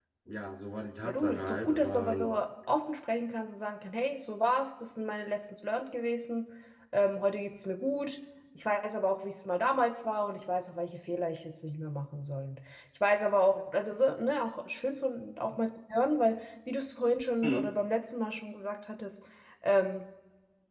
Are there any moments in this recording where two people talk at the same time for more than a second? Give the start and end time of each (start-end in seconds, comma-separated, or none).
1.0-2.3